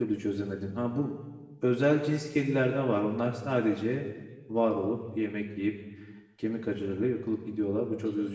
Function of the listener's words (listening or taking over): taking over